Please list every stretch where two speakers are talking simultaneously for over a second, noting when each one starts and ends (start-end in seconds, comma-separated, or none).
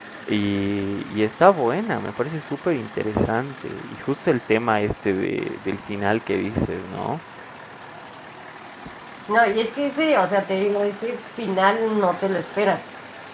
none